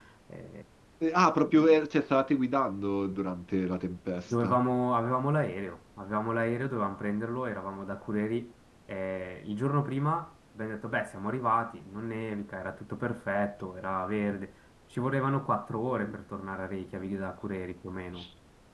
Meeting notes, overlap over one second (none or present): none